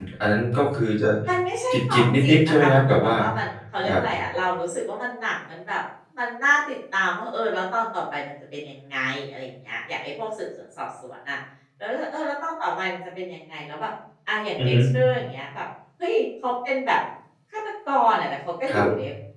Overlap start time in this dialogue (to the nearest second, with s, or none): 2 s